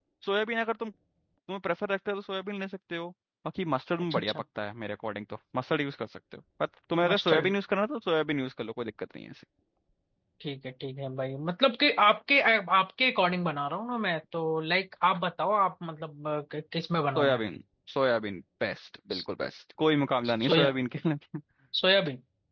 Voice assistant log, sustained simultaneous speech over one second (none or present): none